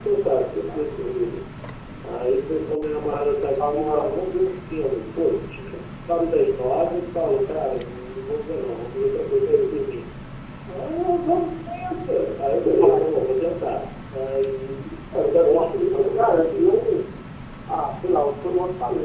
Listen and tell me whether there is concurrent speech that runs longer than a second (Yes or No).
Yes